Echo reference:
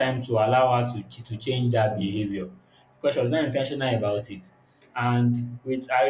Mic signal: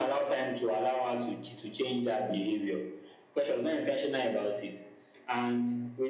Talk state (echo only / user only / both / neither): echo only